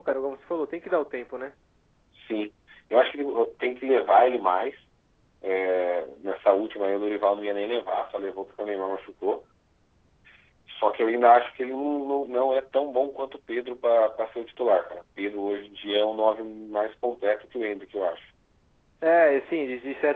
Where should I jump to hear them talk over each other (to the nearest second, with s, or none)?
none